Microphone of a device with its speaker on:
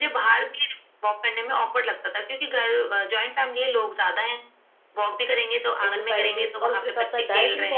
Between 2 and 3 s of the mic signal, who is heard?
echo only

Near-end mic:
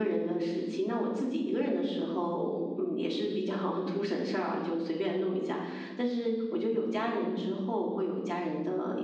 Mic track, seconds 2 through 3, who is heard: echo only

